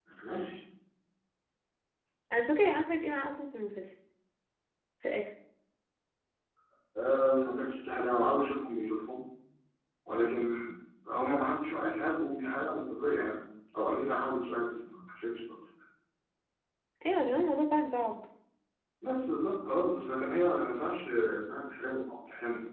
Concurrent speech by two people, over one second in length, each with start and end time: none

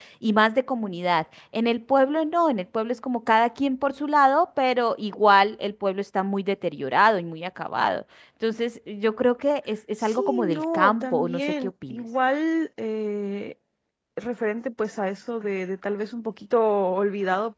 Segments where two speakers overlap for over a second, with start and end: 10.0-12.0

